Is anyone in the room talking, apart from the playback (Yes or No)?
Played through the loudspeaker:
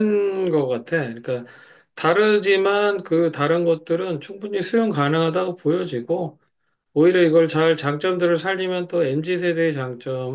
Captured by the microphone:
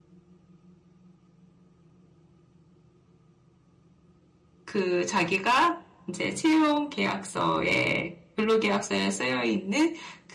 Yes